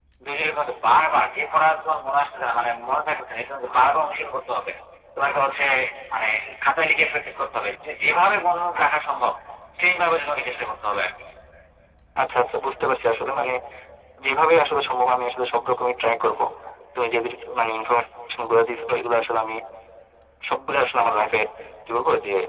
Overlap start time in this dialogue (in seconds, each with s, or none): none